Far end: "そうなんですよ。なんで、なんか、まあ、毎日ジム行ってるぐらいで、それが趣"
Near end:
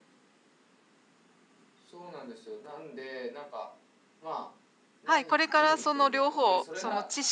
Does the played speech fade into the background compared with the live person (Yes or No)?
Yes